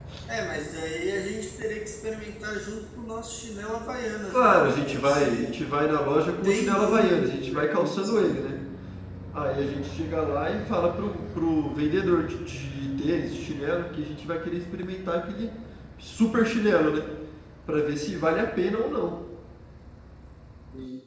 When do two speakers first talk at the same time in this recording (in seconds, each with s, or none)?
4.3 s